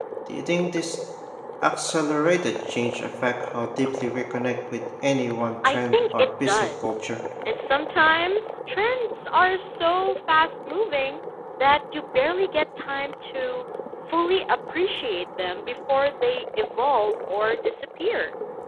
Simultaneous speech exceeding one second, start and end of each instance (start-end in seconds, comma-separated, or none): 5.6-7.0